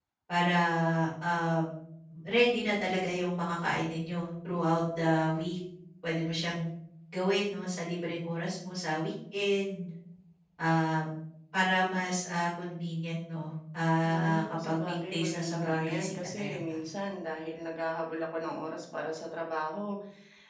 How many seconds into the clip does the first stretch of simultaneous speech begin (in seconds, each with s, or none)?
14.0 s